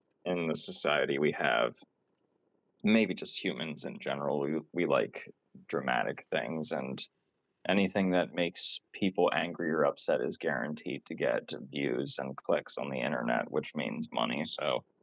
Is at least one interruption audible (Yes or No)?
No